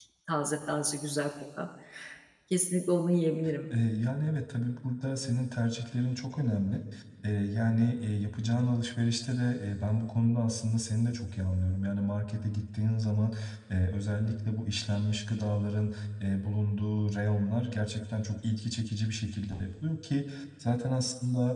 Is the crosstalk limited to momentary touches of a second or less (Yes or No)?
Yes